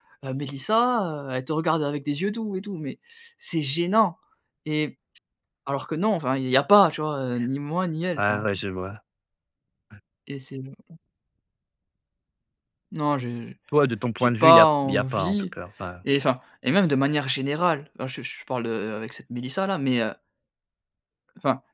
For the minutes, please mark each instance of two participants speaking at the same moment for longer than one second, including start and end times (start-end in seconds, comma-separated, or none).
14.2-15.4